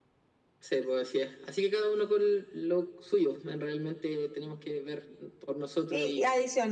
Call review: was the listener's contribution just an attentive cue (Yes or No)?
No